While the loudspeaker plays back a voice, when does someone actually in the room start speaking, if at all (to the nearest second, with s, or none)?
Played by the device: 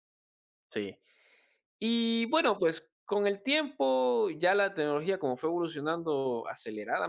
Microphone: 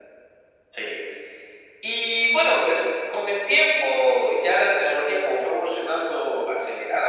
none